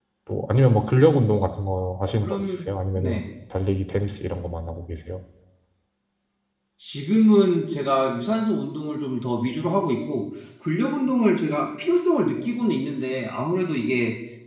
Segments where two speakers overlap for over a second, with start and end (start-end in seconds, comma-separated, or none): none